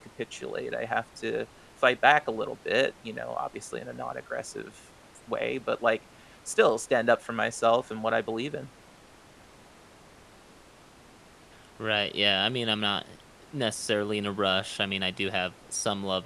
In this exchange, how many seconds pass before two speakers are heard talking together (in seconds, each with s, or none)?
none